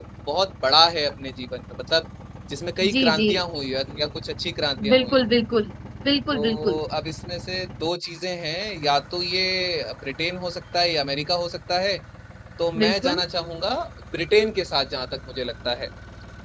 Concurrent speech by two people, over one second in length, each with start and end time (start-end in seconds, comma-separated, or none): none